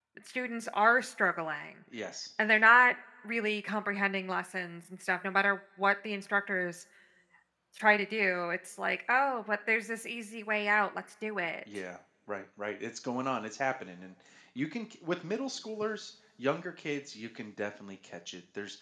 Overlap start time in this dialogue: none

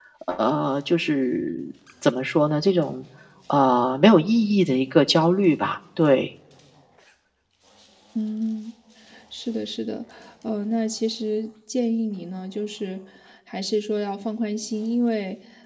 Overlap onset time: none

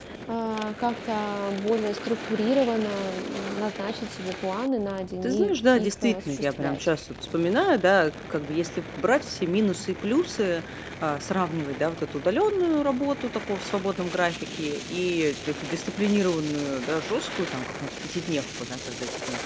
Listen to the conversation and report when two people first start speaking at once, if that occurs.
5.2 s

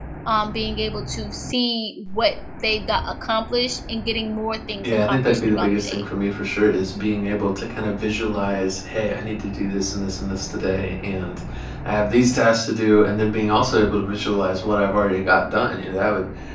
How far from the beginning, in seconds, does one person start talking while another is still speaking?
4.8 s

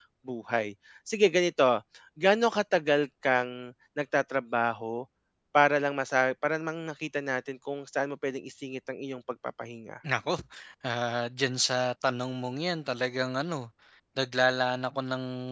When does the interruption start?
none

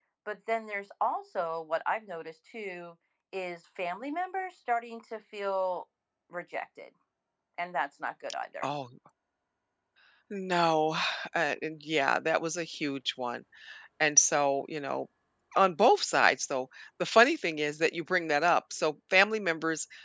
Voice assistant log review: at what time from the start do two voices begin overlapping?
none

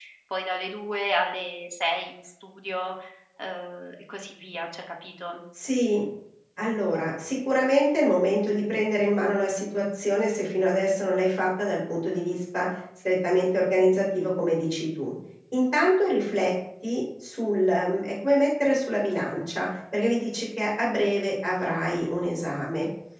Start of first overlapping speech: none

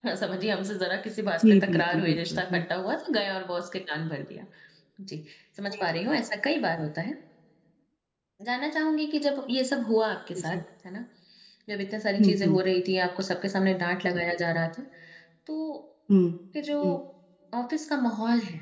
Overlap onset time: 1.4 s

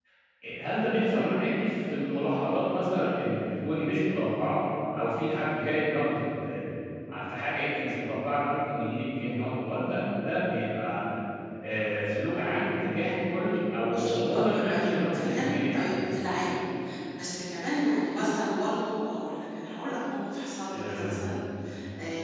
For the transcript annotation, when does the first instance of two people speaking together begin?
13.9 s

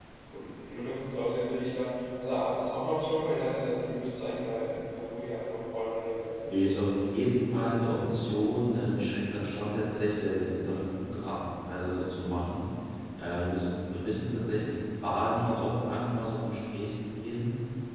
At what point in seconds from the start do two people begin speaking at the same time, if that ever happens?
none

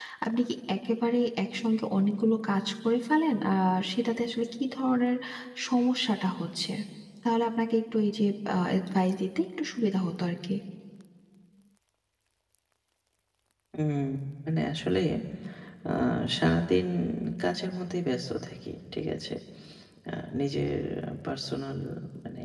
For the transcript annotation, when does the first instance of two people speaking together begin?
none

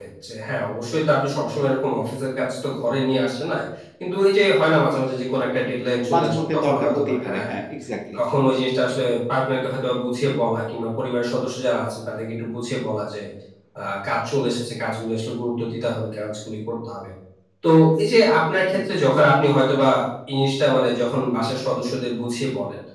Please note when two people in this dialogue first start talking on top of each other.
6.1 s

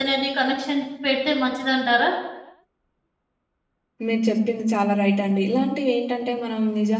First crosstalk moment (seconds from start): none

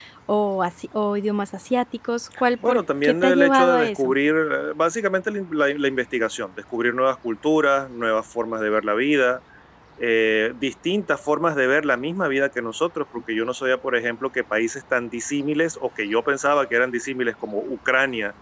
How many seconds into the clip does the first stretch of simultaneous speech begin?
2.7 s

